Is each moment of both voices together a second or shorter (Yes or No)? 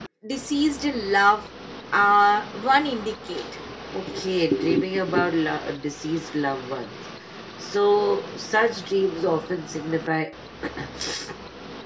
Yes